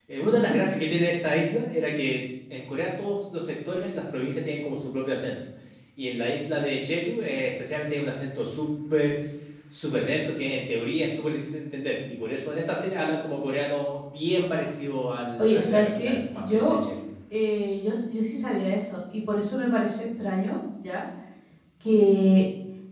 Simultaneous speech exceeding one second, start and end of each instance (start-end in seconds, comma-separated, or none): 15.4-16.8